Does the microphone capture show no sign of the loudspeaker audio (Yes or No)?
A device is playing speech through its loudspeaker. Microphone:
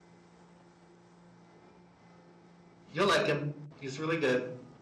Yes